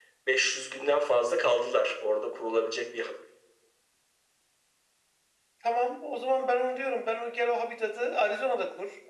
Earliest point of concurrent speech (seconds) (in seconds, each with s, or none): none